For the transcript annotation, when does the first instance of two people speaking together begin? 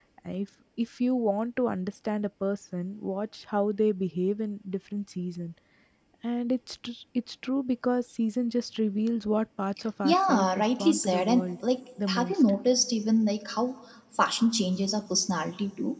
10.0 s

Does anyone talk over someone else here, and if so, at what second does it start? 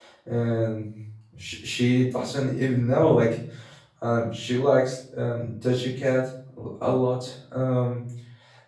none

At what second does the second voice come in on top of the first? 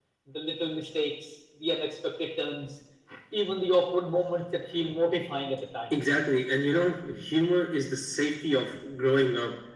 none

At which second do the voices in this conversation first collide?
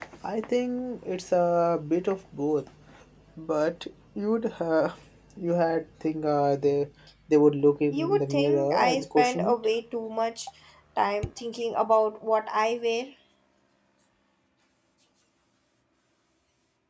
7.9 s

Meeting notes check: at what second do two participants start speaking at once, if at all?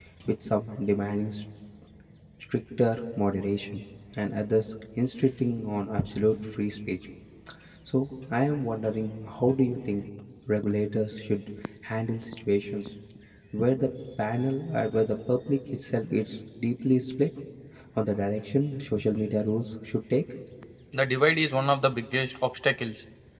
none

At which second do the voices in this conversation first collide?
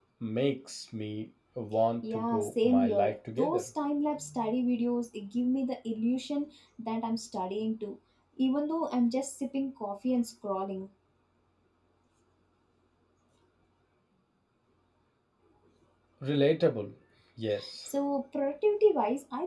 2.0 s

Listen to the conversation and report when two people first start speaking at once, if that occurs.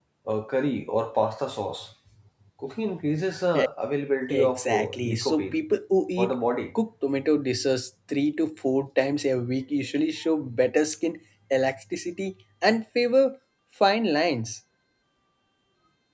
4.3 s

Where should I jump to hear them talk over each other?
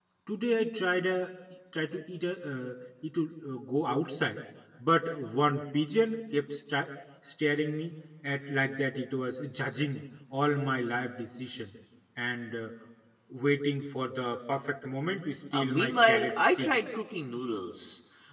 15.5 s

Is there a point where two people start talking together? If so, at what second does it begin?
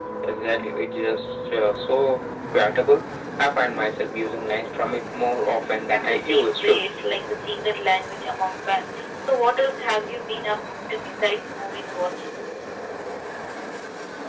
5.4 s

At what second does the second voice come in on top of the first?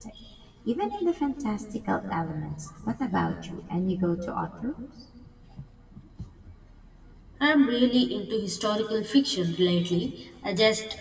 none

